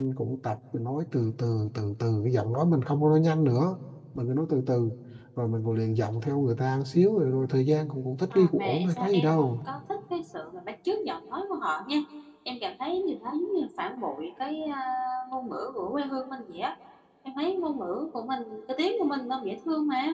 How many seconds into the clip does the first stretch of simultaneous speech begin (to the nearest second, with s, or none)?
8 s